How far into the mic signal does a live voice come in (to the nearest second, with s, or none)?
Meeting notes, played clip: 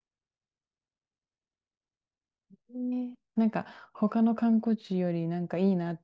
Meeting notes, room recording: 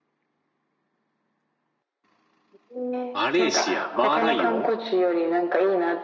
3 s